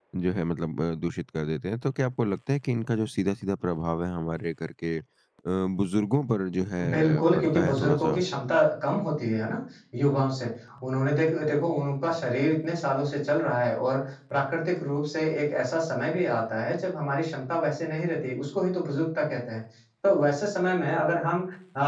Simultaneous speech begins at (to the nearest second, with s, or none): 7 s